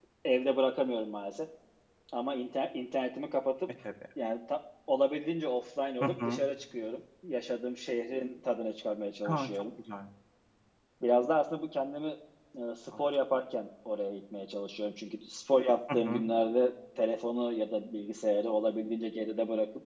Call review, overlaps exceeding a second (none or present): none